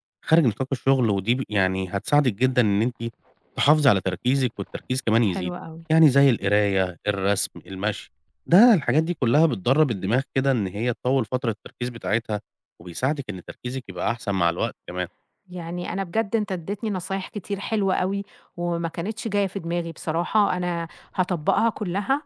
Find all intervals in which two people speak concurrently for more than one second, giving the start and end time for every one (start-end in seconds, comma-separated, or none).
none